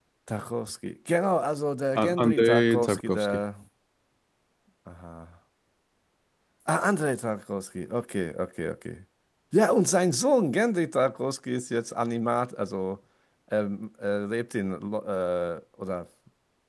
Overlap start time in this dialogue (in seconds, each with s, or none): 1.9 s